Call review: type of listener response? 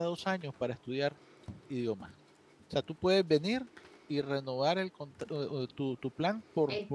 listening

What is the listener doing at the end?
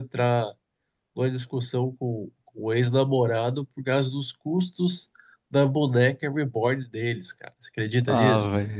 taking over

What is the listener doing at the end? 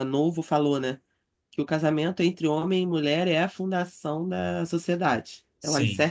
listening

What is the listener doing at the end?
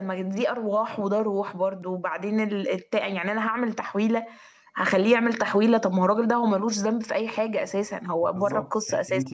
taking over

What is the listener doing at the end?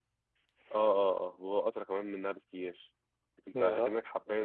listening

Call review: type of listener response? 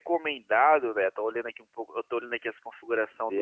listening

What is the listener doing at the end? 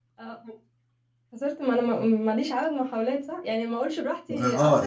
taking over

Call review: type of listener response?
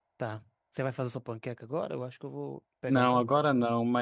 taking over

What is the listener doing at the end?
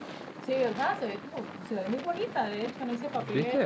listening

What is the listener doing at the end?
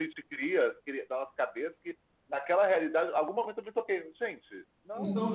taking over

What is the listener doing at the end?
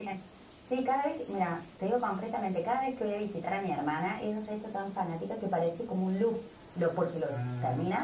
listening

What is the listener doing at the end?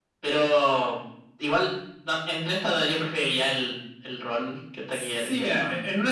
taking over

